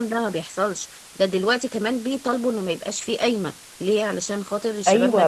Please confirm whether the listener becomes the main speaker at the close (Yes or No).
Yes